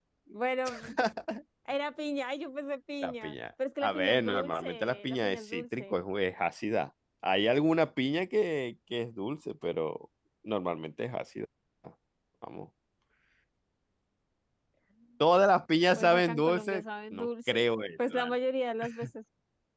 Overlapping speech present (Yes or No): Yes